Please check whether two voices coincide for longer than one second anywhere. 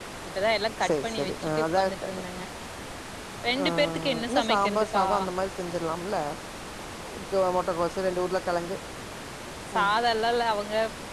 Yes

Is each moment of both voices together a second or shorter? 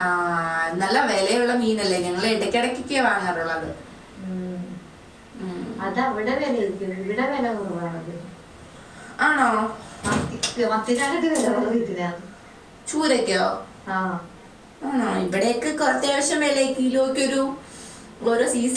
Yes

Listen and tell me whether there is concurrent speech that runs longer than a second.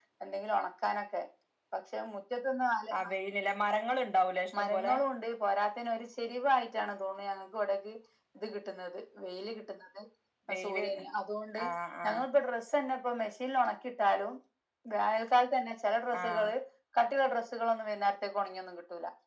No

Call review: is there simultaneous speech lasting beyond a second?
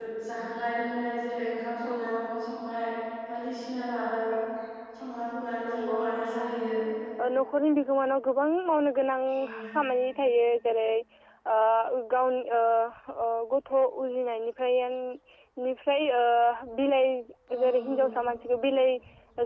No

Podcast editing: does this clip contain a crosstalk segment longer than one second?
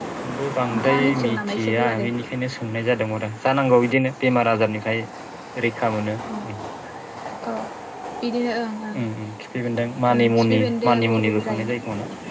Yes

